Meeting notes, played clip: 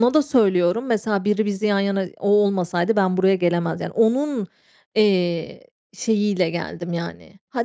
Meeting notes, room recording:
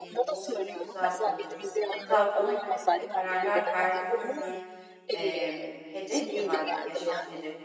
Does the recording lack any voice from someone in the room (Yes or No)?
No